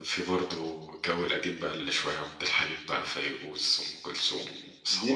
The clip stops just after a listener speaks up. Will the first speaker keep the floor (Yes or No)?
No